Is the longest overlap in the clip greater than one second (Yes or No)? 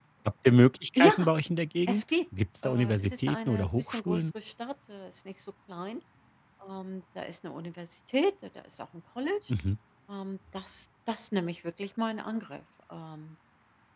Yes